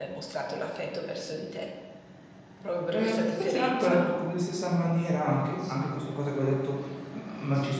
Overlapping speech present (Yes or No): Yes